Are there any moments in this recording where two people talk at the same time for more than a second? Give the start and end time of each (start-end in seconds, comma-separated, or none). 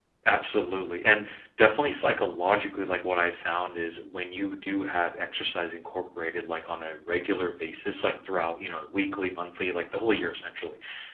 none